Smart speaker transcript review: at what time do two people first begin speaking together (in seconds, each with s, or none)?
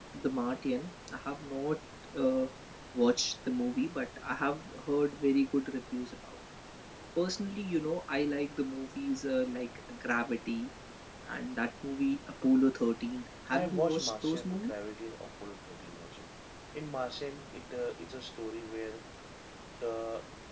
13.5 s